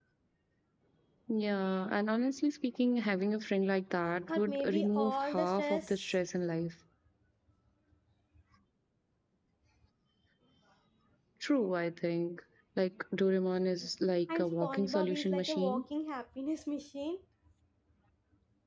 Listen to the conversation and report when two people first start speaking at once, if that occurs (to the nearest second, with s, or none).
4 s